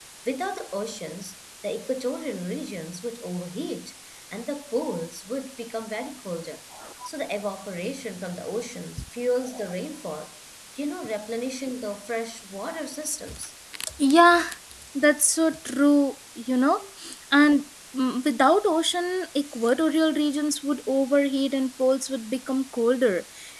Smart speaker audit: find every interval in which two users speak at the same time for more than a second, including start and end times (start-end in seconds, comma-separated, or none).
none